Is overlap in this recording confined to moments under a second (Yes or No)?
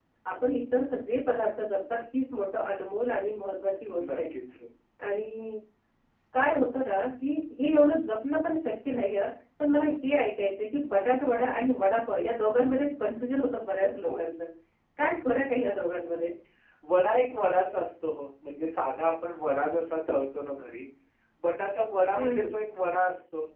Yes